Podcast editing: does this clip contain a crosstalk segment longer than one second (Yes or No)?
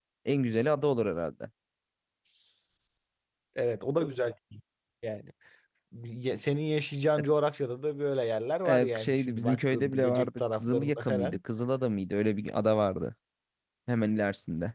Yes